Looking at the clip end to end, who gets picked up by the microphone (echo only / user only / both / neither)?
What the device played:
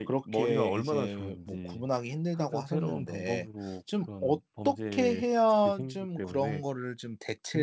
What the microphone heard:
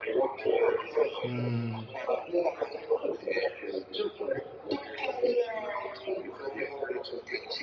both